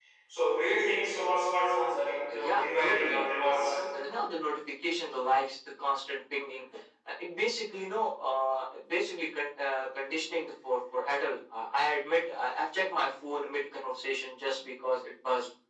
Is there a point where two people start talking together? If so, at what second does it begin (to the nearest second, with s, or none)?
2 s